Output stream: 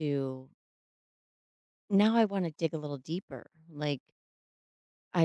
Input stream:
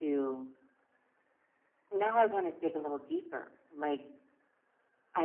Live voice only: none

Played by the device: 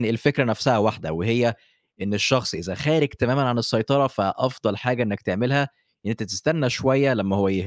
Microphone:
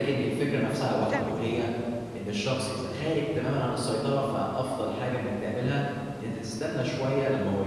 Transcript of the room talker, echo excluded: اه بتعمل ايه بقى

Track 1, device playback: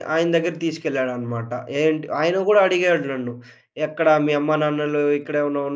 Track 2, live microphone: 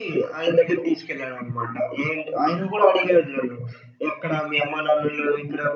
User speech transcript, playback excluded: none

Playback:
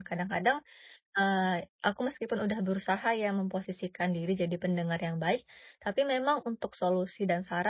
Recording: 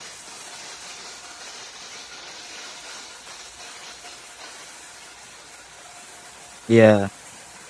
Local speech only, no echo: iya,

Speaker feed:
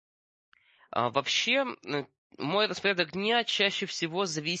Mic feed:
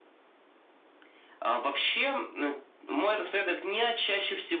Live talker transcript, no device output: none

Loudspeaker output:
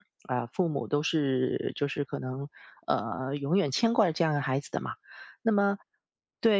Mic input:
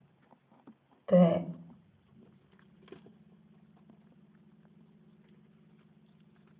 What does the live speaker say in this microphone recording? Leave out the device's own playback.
对，

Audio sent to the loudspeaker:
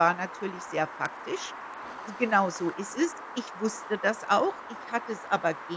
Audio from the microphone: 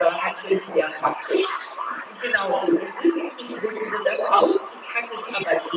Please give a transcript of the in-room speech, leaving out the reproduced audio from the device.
none

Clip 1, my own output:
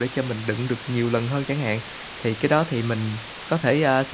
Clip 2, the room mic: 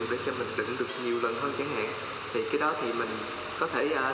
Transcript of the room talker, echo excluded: none

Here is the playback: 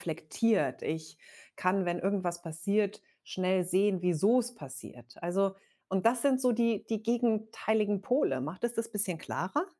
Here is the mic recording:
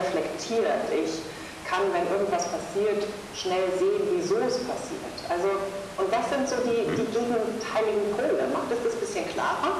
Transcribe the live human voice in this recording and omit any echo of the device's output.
Mhm,

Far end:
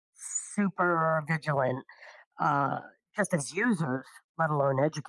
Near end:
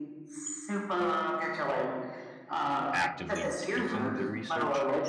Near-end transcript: actively taking the research,

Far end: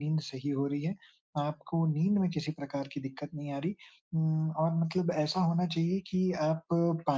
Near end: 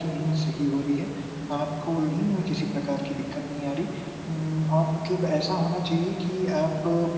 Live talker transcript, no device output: हुँ, हुँ।

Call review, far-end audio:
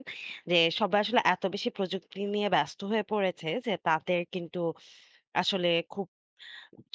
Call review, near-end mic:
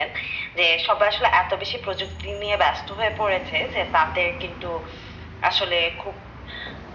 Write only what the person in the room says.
none

